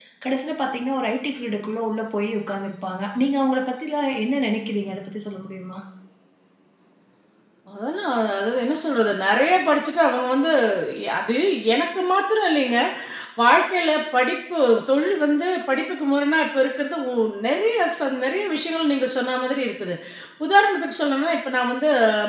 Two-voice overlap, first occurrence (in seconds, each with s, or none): none